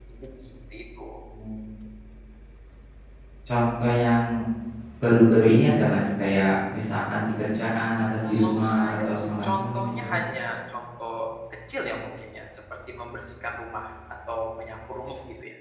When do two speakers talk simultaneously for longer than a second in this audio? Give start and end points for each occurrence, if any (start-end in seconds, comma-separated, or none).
8.3-10.1